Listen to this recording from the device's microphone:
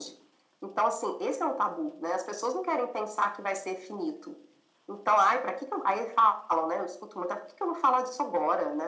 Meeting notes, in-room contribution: none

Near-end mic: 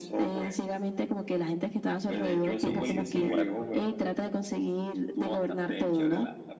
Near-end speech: present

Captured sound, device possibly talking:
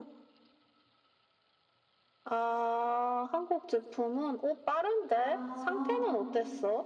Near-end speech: present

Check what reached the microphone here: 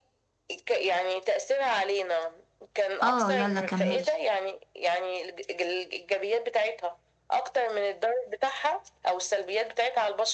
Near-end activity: present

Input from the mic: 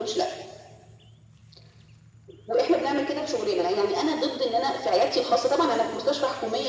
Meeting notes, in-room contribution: none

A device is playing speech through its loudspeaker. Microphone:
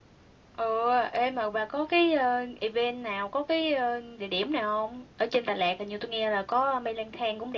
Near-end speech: present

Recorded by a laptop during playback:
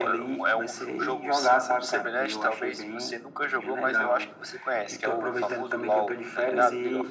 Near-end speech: none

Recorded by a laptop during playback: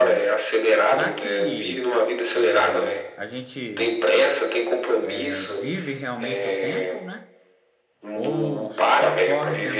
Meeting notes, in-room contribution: present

